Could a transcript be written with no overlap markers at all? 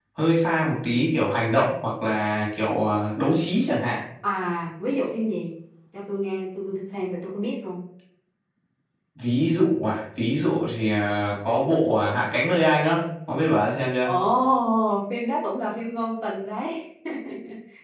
Yes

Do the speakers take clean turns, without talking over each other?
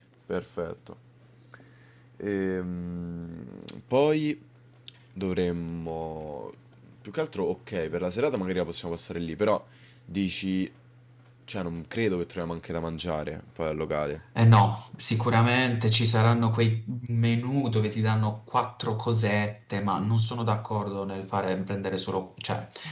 Yes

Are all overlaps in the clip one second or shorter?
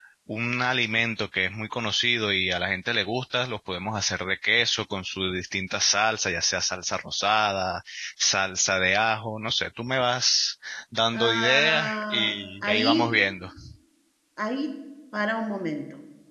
No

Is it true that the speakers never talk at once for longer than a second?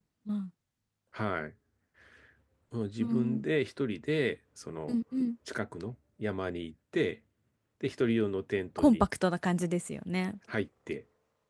Yes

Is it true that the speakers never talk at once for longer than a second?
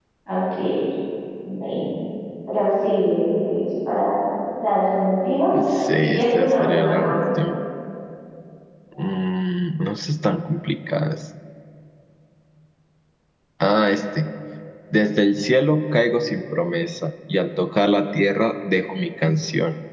No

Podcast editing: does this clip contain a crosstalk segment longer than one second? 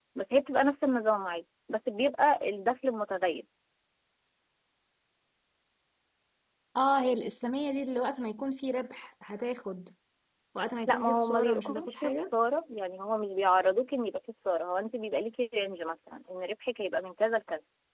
Yes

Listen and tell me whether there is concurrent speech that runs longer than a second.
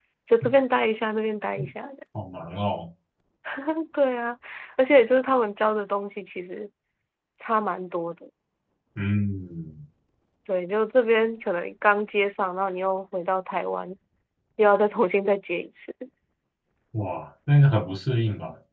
No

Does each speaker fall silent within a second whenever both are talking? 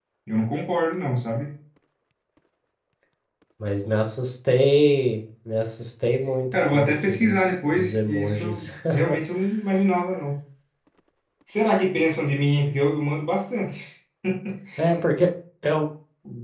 No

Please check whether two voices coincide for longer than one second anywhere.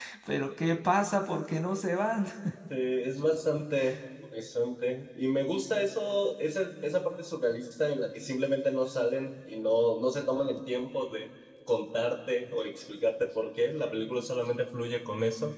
No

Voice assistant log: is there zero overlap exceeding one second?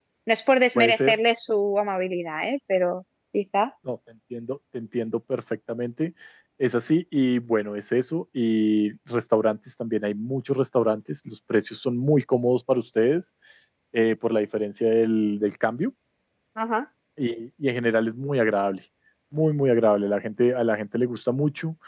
Yes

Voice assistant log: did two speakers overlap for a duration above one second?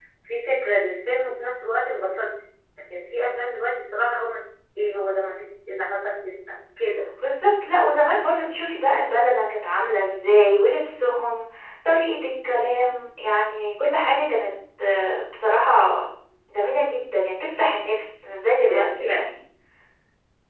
No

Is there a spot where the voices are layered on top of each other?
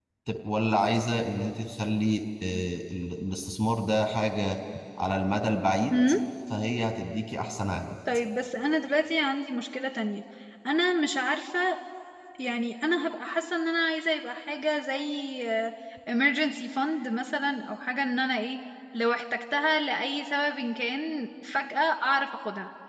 No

